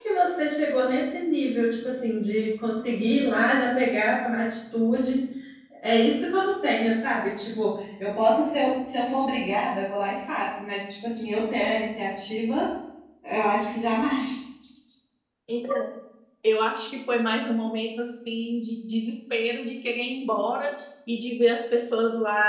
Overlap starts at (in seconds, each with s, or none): none